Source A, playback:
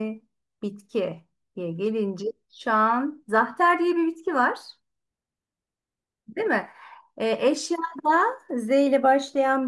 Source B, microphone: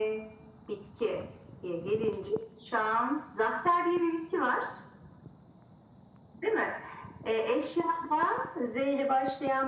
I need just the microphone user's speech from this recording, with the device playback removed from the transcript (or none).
none